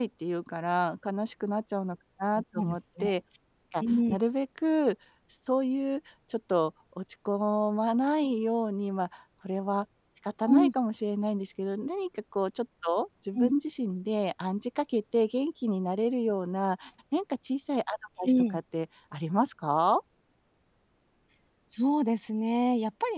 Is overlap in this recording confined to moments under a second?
Yes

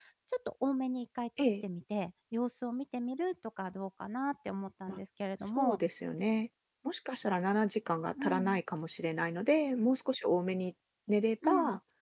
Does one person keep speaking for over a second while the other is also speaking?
No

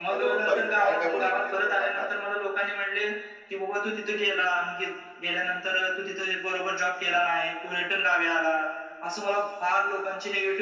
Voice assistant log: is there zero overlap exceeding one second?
No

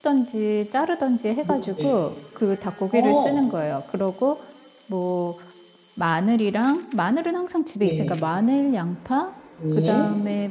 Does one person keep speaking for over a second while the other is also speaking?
No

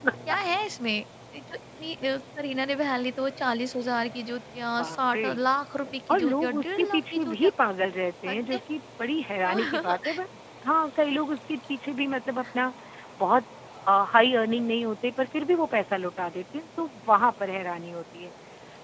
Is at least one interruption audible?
Yes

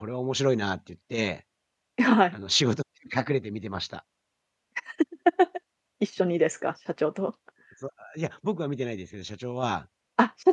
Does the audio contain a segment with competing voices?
No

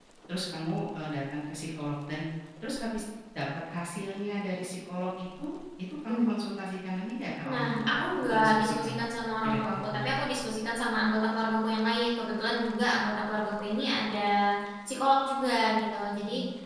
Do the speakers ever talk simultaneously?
Yes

